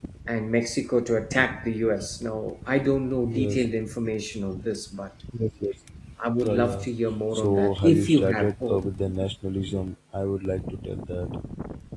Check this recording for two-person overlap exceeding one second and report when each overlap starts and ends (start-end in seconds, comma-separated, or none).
7.4-8.8